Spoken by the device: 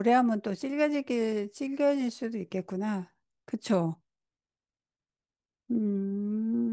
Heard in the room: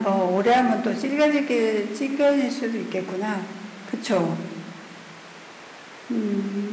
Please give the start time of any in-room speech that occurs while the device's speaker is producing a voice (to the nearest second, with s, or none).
none